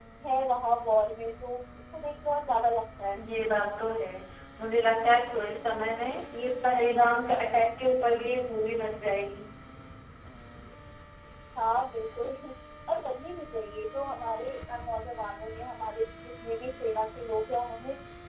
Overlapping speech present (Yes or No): No